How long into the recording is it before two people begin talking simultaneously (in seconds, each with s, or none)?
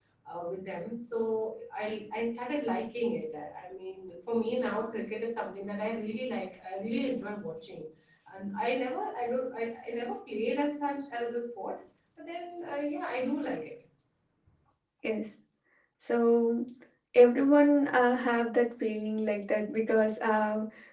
none